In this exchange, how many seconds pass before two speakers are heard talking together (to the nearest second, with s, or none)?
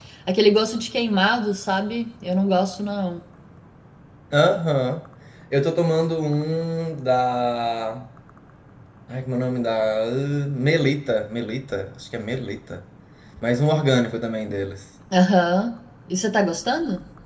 none